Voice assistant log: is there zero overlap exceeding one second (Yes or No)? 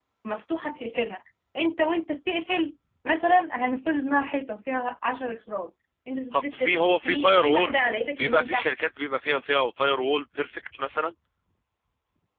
No